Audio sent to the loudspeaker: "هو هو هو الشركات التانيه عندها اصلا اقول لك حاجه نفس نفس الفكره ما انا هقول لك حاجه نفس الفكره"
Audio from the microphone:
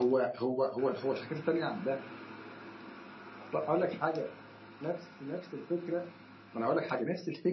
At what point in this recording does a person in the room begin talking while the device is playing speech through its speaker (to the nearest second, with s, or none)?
none